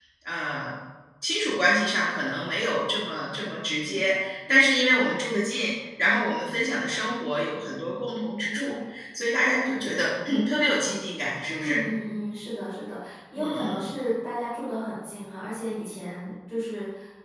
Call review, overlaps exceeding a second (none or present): none